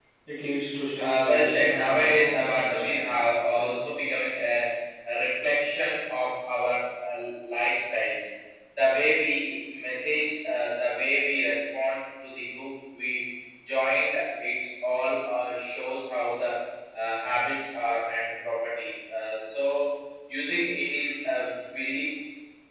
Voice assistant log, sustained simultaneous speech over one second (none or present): present